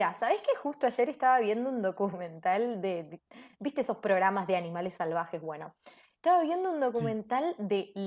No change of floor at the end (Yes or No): Yes